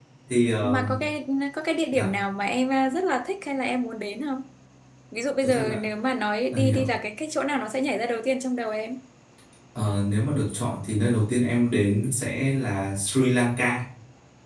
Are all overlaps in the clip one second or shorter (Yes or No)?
Yes